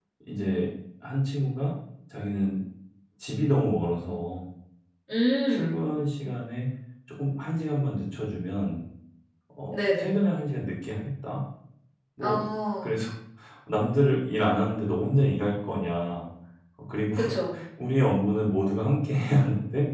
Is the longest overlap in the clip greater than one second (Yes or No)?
No